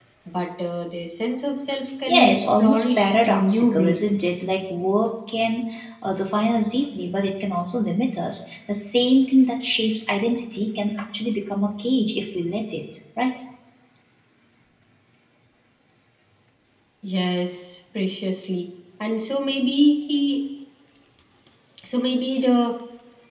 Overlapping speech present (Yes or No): Yes